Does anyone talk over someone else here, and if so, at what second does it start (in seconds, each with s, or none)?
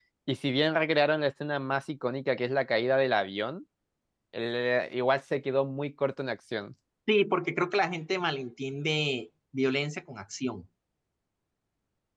none